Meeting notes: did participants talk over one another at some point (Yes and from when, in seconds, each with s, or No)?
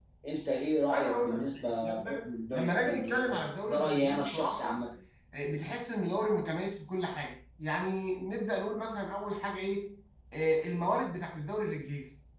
Yes, from 0.9 s